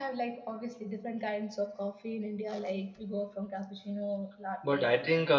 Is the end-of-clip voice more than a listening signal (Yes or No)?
Yes